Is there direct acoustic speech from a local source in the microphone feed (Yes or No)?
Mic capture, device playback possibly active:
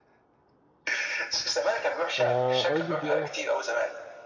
Yes